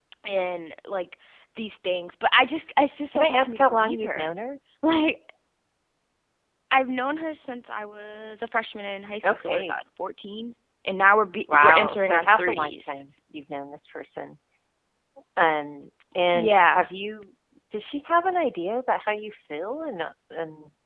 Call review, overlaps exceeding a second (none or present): present